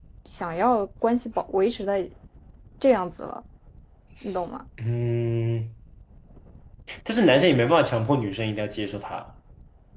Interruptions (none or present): none